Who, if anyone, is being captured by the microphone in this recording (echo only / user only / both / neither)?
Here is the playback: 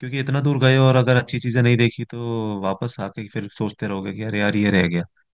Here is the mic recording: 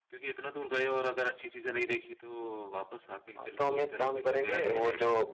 both